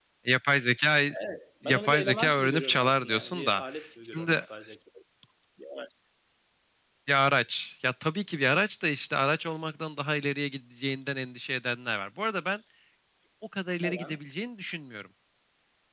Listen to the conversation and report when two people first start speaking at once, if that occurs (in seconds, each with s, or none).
1.6 s